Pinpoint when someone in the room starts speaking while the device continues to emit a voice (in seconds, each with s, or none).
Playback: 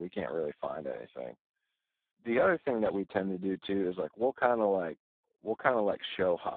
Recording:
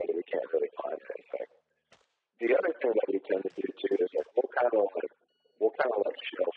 none